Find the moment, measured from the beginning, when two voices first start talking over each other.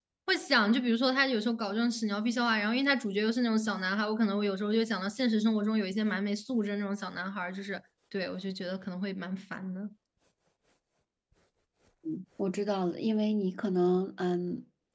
none

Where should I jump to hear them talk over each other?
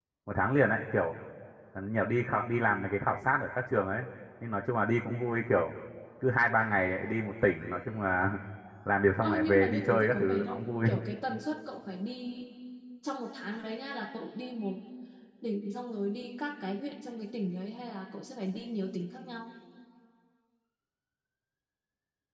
9.2 s

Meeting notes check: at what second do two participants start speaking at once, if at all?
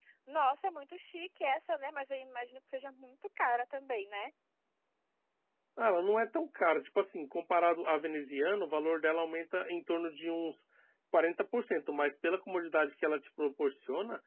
none

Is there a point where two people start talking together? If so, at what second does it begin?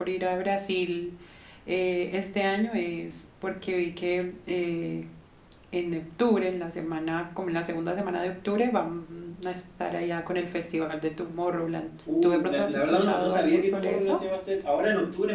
12.1 s

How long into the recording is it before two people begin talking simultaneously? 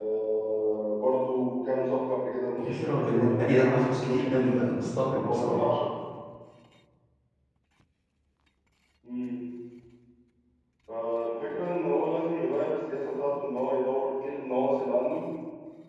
2.6 s

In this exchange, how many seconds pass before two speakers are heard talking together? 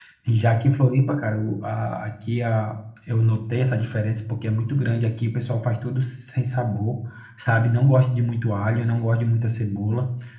none

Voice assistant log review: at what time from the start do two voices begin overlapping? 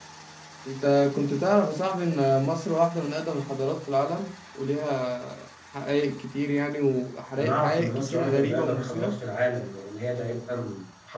7.4 s

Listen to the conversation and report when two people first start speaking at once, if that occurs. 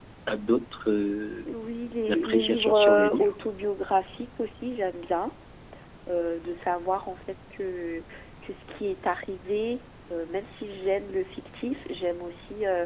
2.1 s

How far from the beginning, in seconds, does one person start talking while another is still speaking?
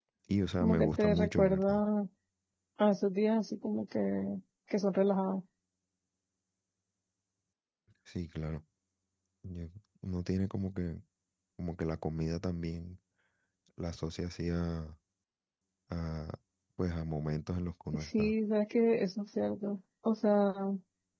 0.6 s

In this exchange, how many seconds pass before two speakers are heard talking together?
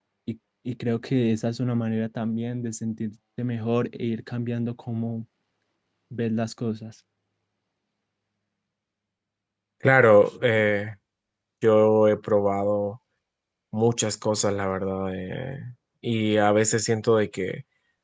none

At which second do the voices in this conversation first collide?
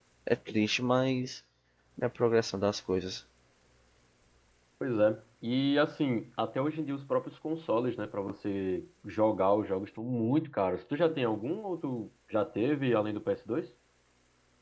none

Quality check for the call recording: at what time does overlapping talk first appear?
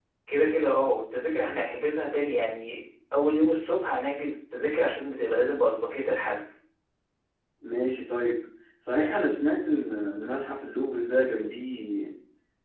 none

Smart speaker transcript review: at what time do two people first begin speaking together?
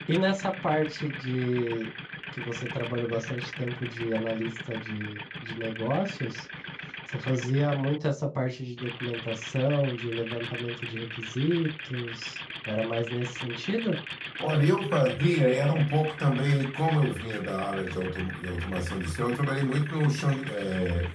none

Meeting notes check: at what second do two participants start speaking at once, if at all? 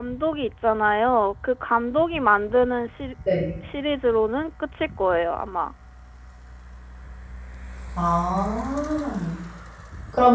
none

